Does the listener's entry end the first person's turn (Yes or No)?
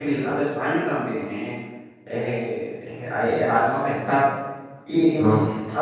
No